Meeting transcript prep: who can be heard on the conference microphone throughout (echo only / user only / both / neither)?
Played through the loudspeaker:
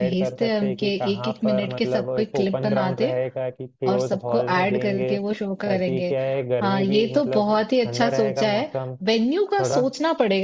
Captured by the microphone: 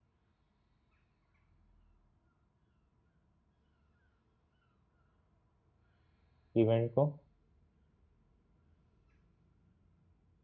user only